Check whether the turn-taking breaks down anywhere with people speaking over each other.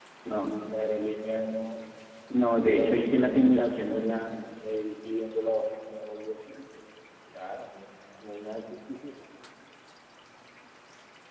Yes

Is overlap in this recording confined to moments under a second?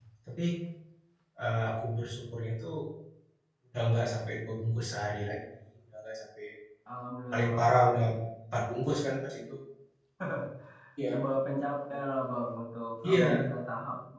Yes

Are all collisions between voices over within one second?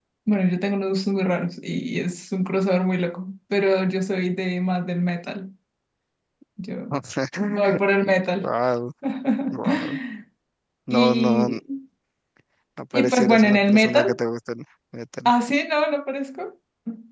No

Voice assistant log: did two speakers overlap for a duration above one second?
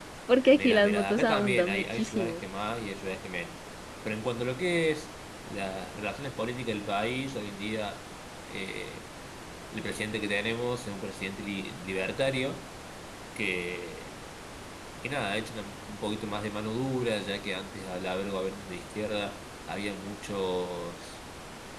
Yes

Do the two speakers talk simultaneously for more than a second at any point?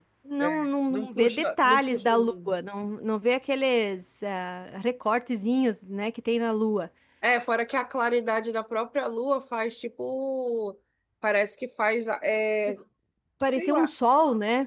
Yes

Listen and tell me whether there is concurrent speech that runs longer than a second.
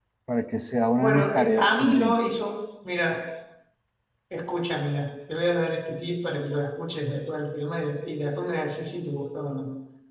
Yes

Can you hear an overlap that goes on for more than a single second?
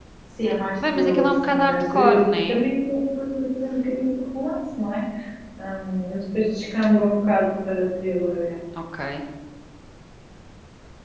Yes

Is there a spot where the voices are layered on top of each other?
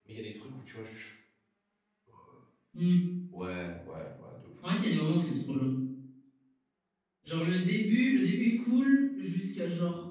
No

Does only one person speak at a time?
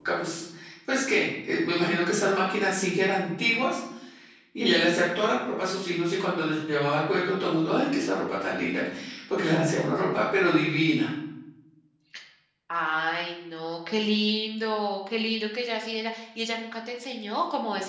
Yes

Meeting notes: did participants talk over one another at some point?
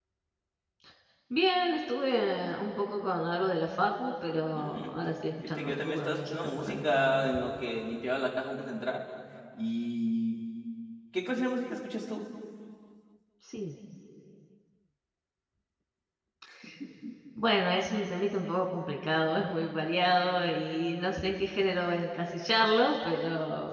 Yes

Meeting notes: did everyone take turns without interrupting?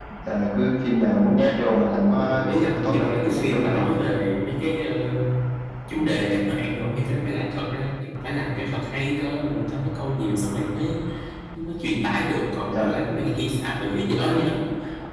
No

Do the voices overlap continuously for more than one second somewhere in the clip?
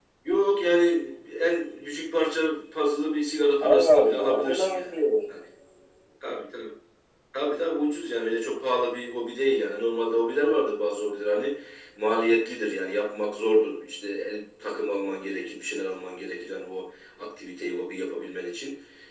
Yes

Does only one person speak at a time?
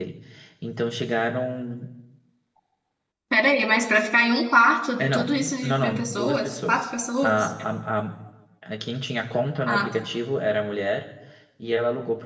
No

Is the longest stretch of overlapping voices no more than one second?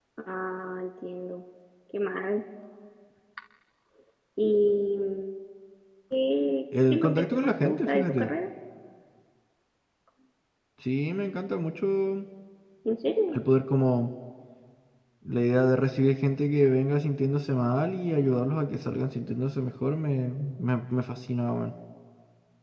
No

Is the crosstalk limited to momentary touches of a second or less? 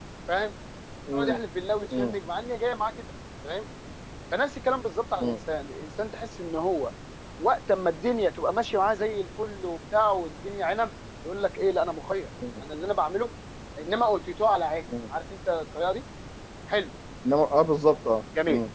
Yes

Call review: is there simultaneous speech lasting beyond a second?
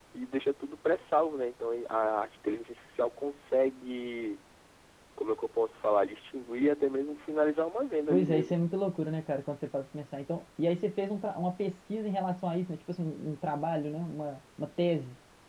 No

